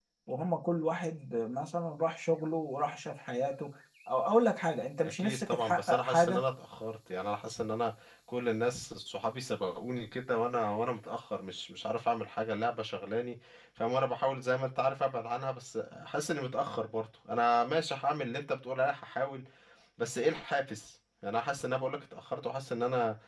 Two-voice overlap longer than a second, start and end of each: 5.0-6.5

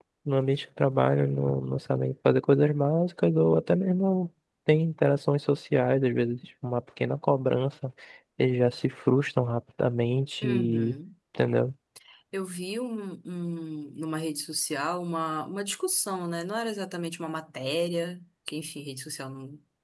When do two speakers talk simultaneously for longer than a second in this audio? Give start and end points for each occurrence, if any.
none

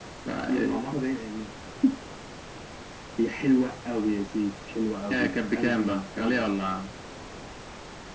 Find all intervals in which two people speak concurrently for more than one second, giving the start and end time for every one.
5.1-6.5

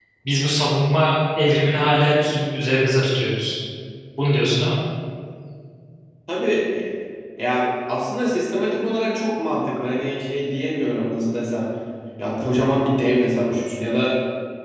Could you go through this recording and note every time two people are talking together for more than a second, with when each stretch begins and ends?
none

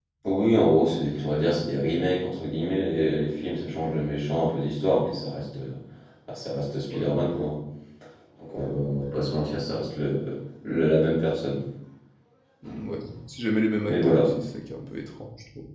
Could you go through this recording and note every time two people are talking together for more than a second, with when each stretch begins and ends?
none

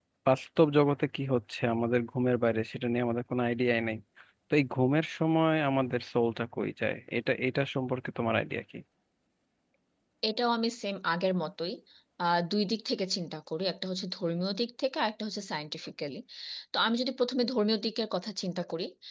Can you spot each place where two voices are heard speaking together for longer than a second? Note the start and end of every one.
none

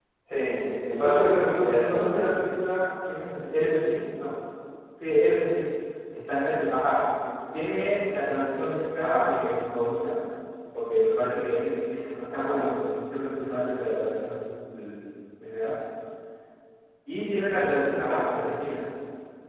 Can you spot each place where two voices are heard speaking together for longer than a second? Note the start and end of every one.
1.0-2.3

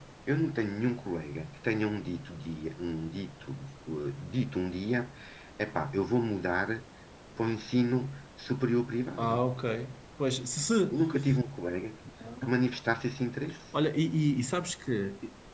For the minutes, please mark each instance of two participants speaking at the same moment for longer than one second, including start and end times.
none

